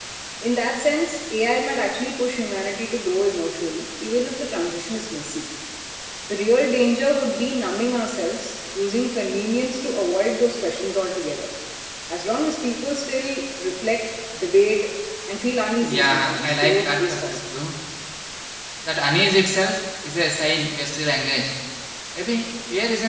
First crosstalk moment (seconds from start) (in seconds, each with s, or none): 15.9 s